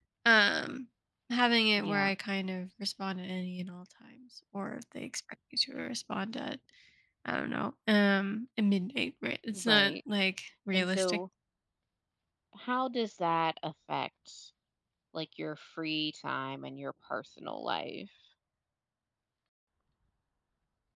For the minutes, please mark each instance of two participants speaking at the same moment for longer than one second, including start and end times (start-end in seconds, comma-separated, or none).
none